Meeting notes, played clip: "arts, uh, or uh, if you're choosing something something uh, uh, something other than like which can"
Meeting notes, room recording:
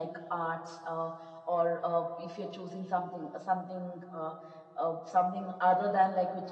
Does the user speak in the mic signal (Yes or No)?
No